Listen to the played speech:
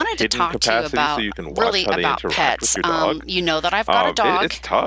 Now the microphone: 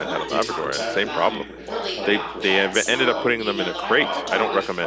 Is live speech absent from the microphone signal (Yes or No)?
No